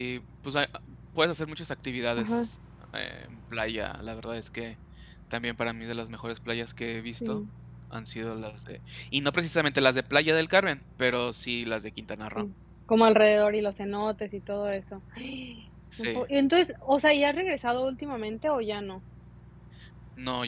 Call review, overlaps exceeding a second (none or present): none